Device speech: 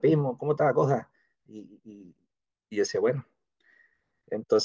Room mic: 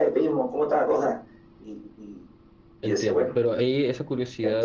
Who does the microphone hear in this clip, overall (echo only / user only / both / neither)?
both